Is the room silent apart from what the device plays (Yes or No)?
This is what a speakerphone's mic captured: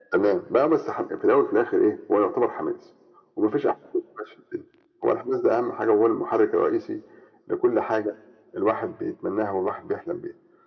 Yes